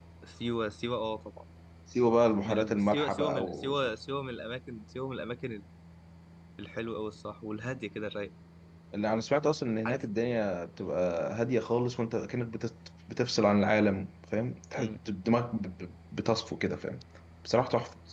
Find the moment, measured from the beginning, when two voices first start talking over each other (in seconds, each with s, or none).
2.4 s